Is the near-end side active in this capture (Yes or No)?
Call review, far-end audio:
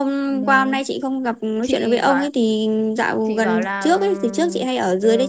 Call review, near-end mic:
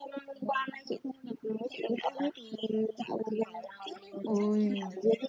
Yes